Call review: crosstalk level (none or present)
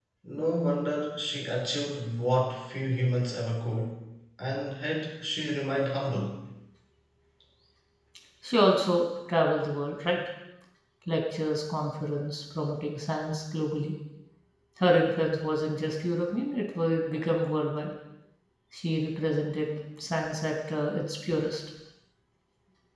none